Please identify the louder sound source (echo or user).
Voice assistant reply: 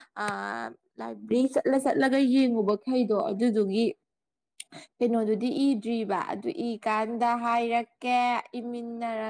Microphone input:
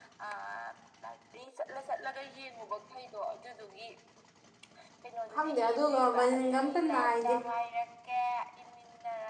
user